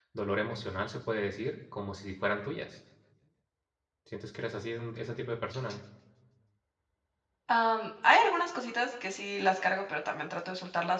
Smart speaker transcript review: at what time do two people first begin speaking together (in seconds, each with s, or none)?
none